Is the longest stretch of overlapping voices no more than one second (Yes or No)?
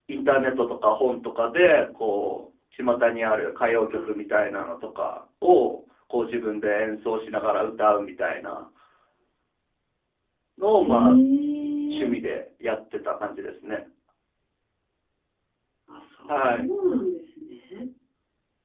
Yes